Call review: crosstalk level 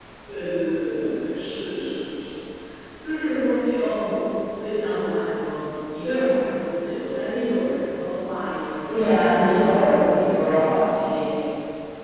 present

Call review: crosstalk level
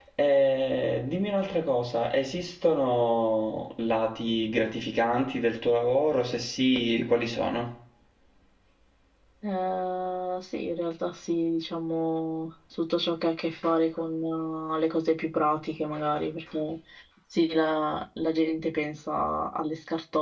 none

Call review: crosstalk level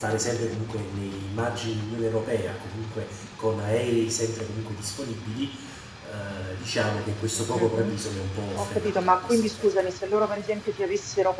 present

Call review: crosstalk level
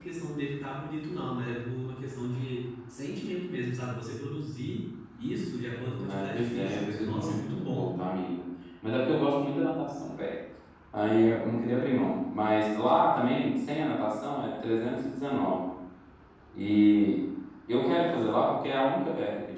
present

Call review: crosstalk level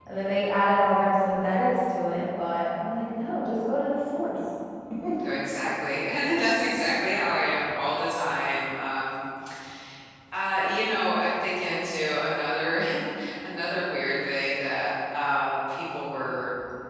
none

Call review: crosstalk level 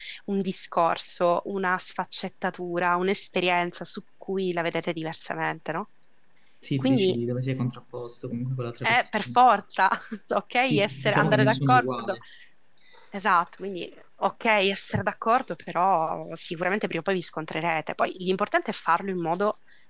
present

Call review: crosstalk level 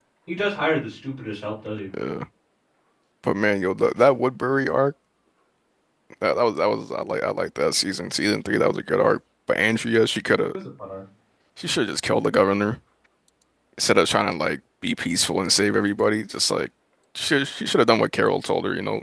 none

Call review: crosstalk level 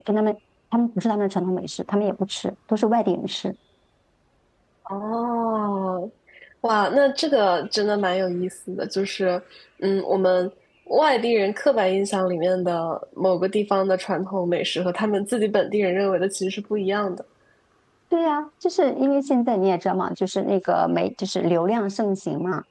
none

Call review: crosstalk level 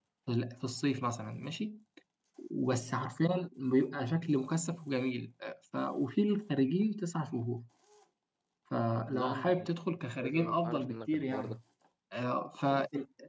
present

